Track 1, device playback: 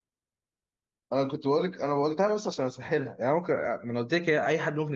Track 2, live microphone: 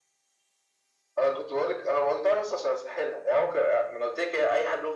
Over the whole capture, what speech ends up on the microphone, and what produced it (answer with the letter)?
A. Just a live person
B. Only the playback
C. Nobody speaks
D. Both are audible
B